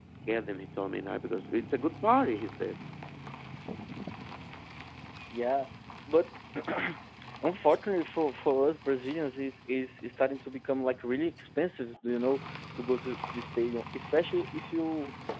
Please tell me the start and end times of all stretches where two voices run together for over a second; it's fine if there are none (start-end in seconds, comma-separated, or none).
none